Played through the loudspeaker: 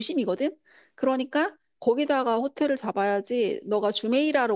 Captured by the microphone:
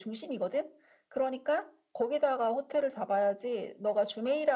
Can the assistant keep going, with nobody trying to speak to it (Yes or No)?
Yes